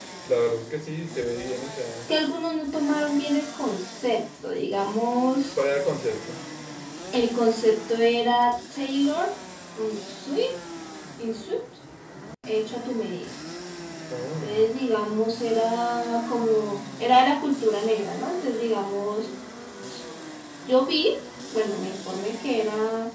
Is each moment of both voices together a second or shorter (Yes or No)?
Yes